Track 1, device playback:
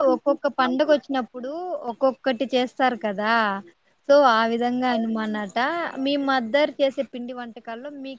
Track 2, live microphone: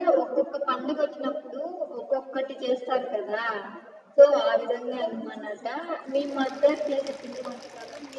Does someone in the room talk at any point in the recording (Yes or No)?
No